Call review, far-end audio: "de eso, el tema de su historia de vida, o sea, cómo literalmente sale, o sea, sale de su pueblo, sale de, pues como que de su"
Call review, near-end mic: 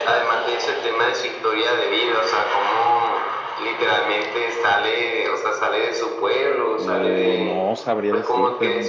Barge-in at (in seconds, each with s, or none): 6.8 s